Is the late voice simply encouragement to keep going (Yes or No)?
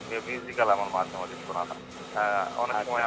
Yes